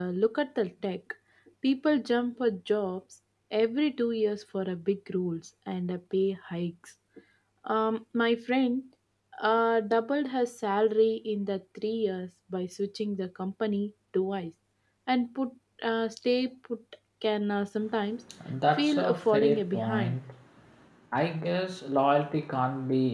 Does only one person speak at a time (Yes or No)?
No